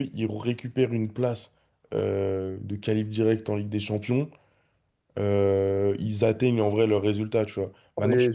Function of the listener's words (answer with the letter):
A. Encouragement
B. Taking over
A